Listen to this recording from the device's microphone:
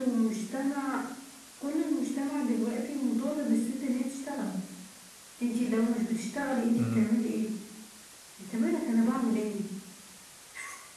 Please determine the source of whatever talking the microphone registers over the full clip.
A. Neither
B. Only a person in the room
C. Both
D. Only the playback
C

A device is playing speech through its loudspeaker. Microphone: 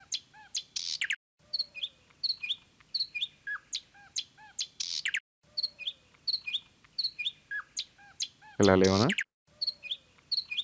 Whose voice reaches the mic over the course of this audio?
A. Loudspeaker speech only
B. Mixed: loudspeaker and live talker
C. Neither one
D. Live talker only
D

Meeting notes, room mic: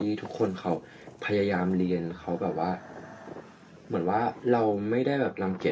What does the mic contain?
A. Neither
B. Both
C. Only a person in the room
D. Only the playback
C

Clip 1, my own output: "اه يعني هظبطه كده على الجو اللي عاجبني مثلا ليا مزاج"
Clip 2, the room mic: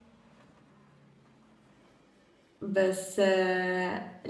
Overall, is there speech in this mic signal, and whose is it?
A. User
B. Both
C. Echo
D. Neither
A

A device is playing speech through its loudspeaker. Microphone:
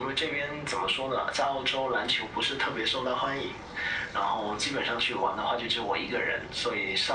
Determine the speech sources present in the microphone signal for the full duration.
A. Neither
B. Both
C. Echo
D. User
C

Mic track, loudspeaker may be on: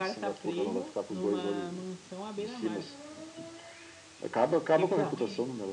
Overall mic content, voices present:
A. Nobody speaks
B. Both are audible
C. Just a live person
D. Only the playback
B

